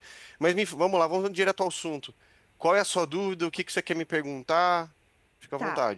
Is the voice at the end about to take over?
Yes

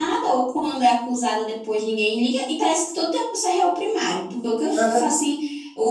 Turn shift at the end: No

